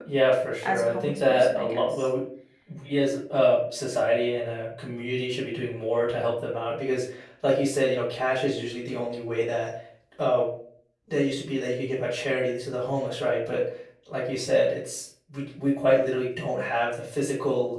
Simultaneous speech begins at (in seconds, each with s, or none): 0.6 s